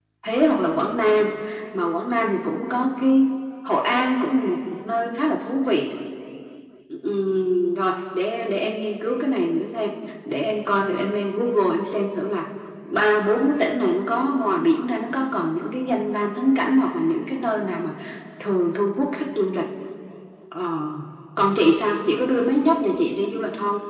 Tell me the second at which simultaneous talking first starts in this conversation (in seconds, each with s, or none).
none